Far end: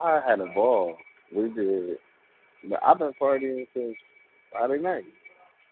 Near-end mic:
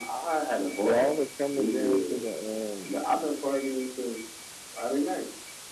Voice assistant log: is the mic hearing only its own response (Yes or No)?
No